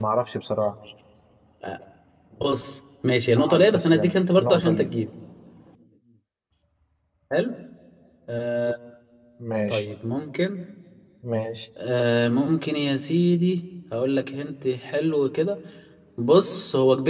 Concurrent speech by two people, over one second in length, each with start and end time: 3.4-4.9

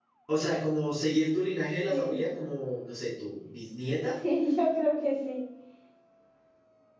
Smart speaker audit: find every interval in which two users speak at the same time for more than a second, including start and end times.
none

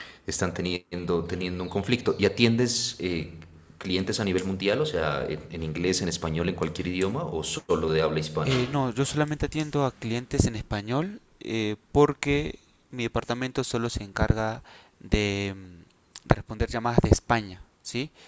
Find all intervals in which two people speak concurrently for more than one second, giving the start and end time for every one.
none

